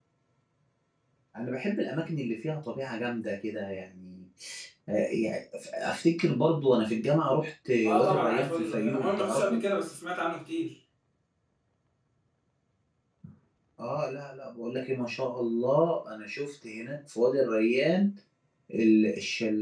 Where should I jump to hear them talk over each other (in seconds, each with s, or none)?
7.8 s